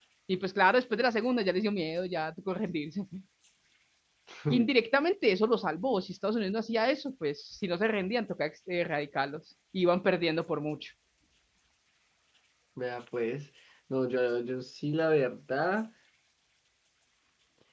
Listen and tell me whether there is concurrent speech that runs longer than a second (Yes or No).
No